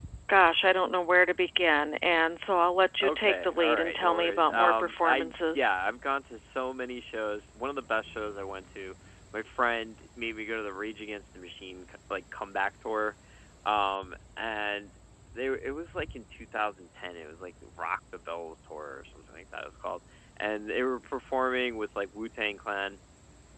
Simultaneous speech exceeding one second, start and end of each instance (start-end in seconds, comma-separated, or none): 3.0-5.7